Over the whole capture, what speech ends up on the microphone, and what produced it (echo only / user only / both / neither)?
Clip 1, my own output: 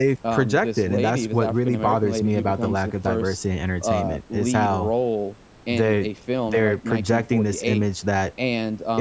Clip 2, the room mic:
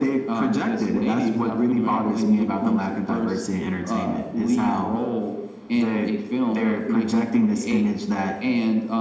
echo only